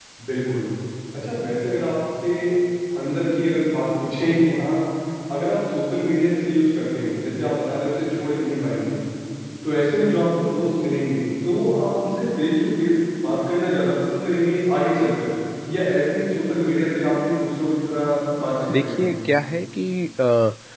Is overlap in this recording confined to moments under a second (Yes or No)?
Yes